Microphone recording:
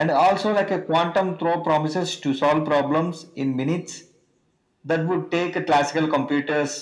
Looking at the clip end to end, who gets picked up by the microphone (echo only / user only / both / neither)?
echo only